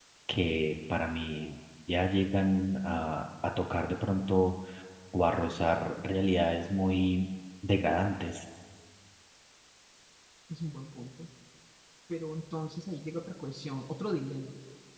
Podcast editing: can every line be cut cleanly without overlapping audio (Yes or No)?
Yes